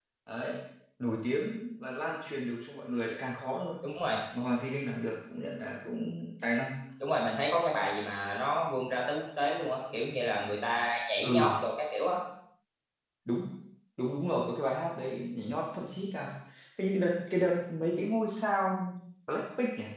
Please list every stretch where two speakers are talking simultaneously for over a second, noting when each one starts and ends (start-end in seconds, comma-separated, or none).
none